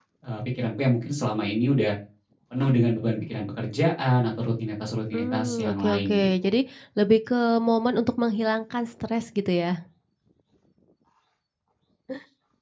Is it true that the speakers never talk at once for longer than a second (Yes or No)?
No